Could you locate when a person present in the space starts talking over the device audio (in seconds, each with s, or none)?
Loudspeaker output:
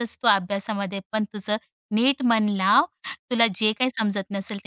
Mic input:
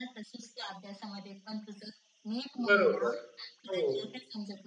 2.7 s